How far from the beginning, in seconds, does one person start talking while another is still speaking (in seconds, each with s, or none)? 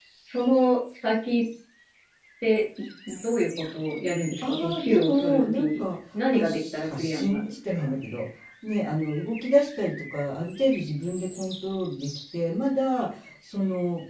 4.4 s